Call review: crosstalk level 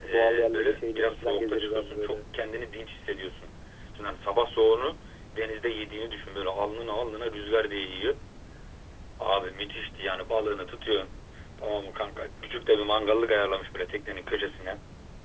present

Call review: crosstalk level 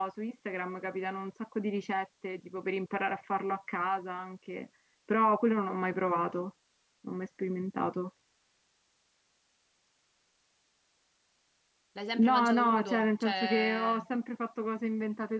present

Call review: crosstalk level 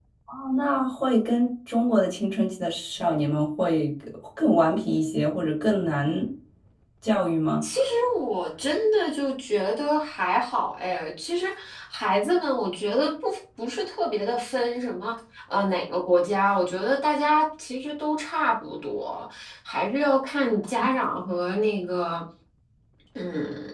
none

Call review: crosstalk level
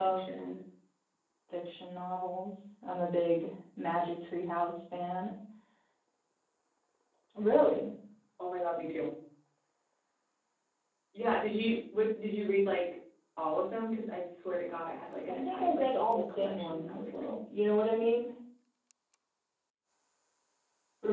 present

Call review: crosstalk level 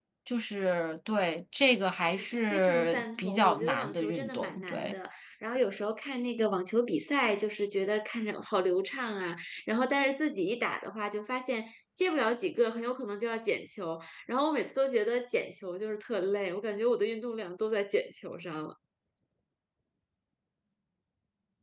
present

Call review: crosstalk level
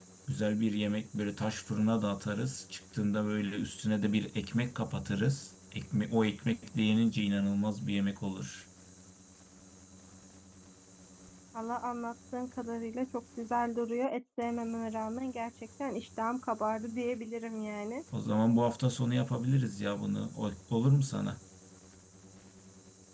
none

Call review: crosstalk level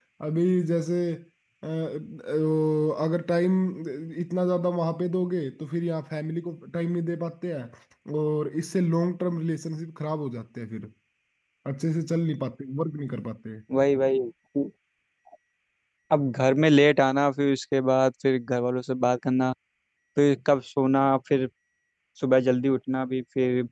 none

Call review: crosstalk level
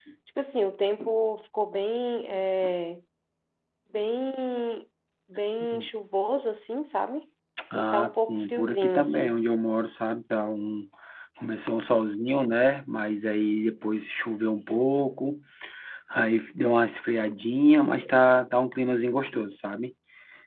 present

